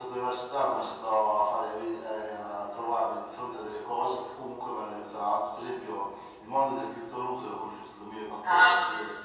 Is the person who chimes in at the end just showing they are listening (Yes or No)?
Yes